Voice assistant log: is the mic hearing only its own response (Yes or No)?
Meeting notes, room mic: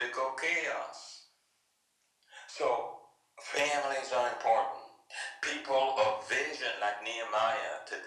Yes